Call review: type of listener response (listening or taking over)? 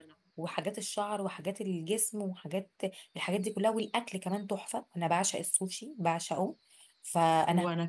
listening